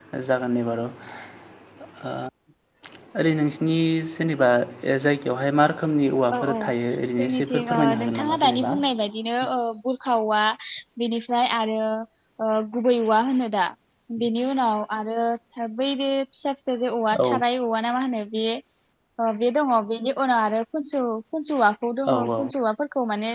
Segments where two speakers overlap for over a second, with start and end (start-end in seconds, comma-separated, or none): 7.2-8.7